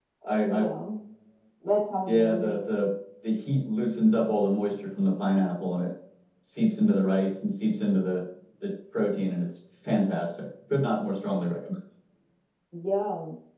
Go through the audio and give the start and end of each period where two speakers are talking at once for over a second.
none

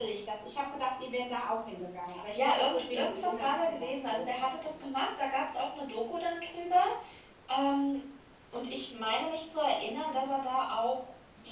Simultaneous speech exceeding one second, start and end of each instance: 2.4-4.9

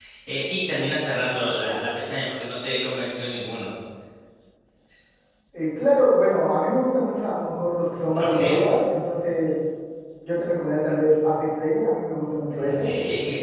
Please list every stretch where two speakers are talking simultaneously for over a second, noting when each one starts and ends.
none

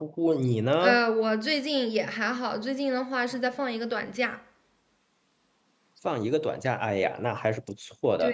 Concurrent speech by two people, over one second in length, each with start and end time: none

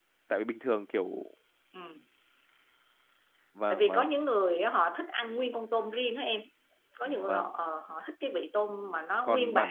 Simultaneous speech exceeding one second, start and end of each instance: none

